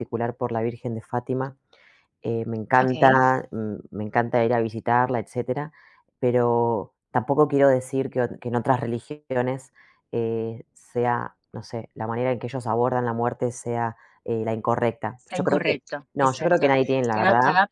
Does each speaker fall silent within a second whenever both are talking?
Yes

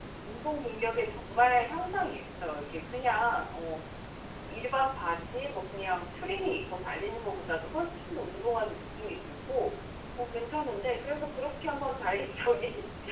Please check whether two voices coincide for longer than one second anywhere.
No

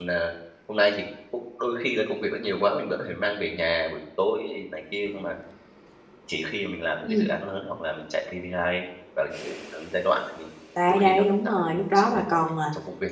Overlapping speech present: Yes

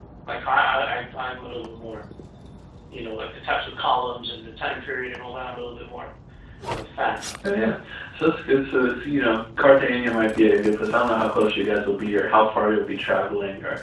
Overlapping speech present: No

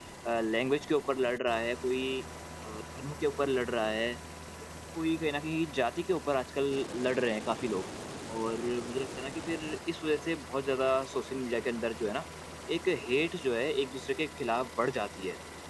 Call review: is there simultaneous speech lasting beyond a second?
No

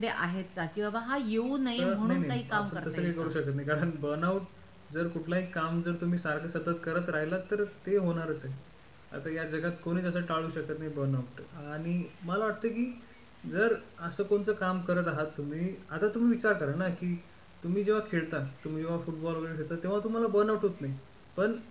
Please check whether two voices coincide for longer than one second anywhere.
Yes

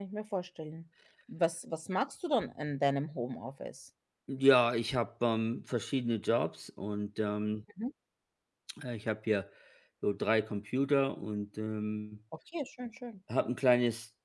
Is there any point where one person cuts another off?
No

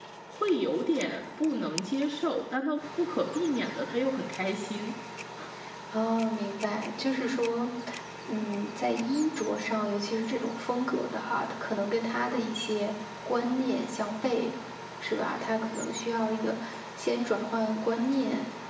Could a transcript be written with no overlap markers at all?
Yes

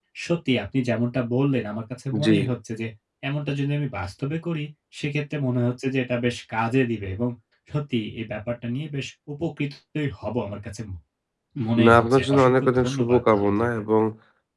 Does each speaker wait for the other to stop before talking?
No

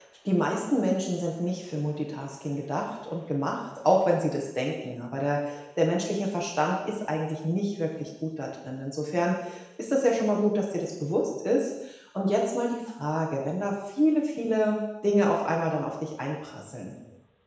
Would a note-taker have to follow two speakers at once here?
No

